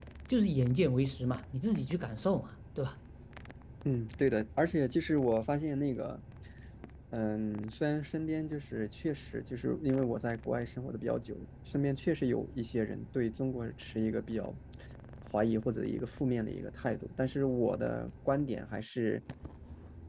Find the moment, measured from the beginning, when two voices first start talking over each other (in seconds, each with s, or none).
none